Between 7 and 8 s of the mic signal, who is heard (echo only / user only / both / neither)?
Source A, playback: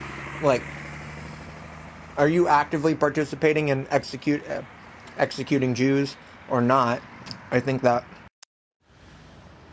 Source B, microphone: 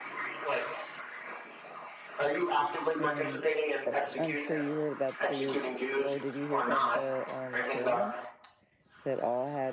both